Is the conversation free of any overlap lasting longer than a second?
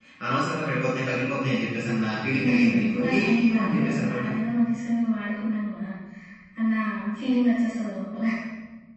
No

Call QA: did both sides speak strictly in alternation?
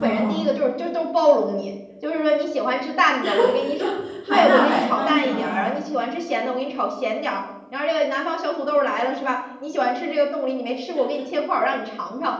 No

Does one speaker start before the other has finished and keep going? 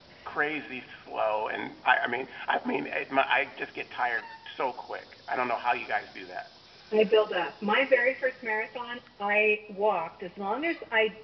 No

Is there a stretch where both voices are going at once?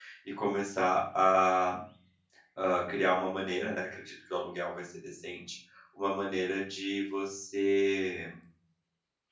No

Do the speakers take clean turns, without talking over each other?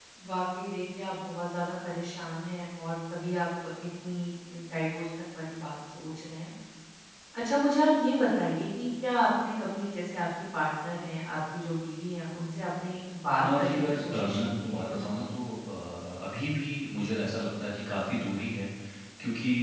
No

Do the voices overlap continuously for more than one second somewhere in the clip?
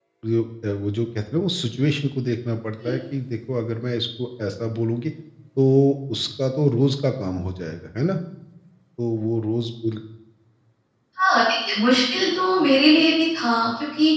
No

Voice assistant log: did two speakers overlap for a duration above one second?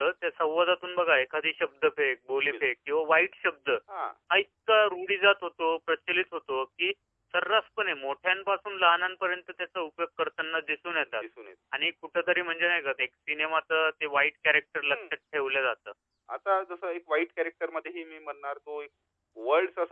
No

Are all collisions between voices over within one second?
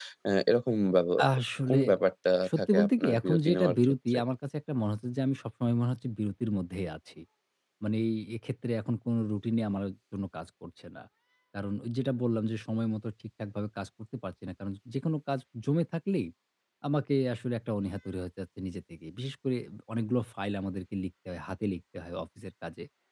No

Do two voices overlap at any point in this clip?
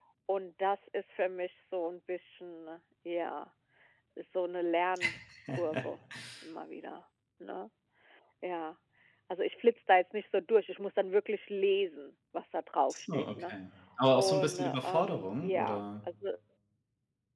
Yes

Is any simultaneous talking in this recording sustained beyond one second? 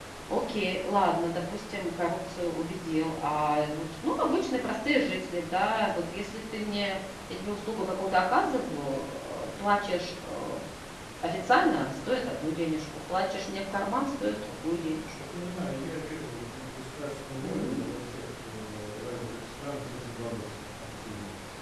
No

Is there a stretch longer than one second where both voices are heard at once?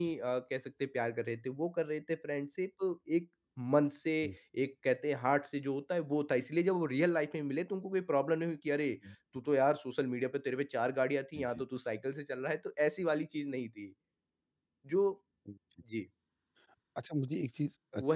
No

